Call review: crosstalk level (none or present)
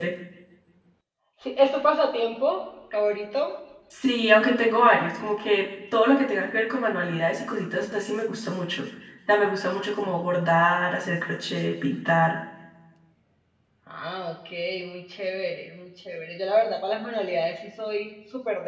none